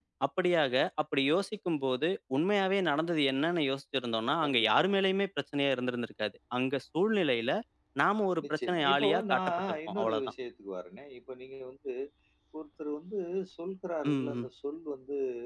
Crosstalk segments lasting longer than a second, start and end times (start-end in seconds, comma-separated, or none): 8.6-10.3